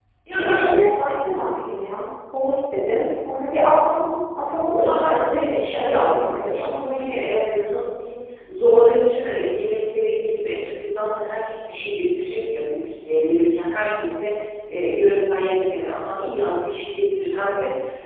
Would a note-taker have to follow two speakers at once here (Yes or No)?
Yes